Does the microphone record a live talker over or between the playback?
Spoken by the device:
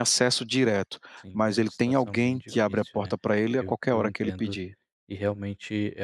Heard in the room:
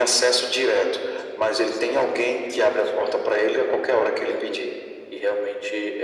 No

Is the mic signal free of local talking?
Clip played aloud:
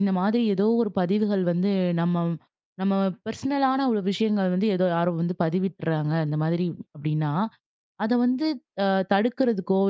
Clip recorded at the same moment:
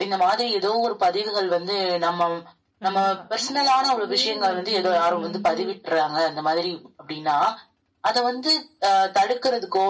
No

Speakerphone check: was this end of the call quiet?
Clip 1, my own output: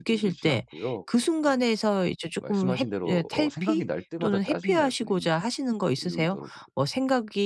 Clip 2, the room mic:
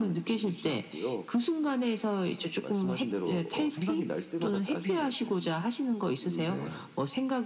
No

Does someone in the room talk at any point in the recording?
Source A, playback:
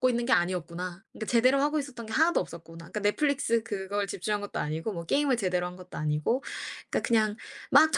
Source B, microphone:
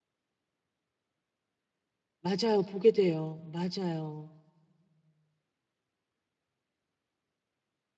Yes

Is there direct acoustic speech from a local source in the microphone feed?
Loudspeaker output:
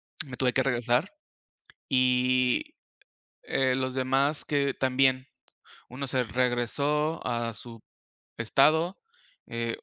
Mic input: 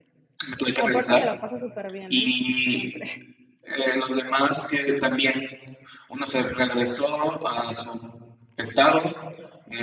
Yes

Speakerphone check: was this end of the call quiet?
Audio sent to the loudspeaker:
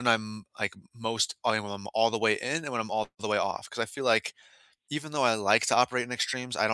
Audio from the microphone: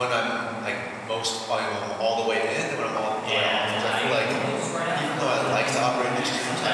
No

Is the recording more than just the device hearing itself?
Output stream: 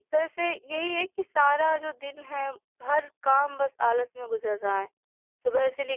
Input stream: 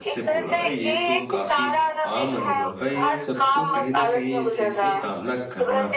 Yes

